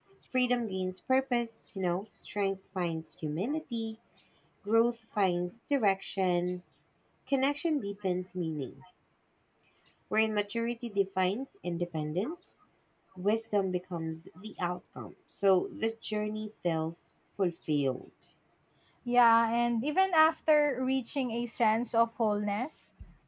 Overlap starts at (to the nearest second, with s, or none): none